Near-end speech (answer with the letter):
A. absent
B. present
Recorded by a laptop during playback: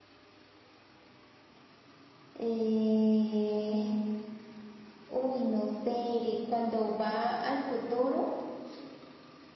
A